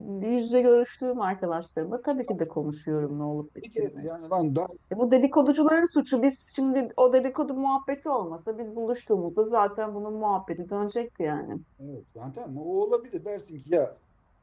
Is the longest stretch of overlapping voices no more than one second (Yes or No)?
Yes